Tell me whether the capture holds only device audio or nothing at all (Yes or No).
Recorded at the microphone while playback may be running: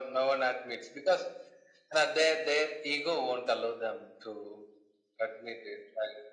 Yes